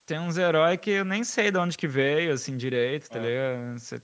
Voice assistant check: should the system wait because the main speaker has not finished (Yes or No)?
Yes